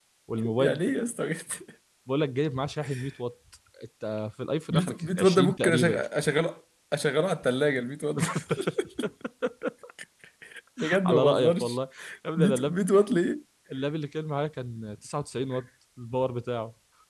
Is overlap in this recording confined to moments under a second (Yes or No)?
No